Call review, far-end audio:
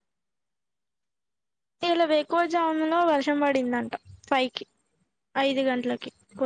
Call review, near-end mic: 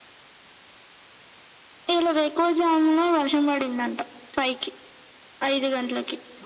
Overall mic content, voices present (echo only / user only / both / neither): echo only